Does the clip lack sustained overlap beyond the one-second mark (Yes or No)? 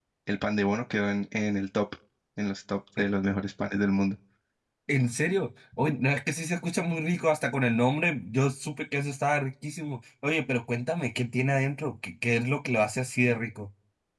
Yes